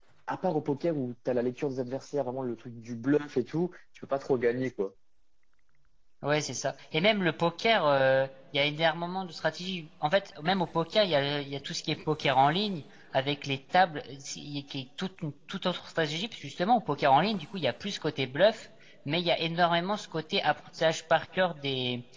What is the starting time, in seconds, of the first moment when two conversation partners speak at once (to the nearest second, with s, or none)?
none